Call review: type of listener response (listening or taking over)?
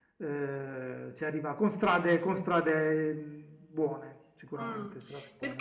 taking over